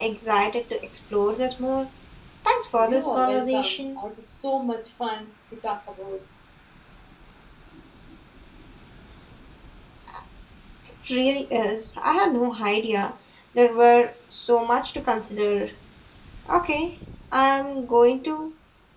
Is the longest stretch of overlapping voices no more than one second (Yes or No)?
No